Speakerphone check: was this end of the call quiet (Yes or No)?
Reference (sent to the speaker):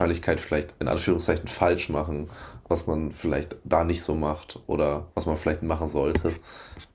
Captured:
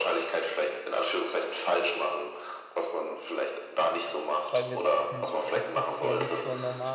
No